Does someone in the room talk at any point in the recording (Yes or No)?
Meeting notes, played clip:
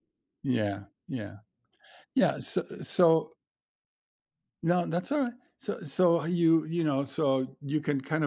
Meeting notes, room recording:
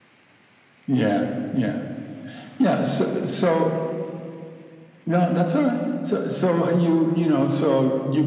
No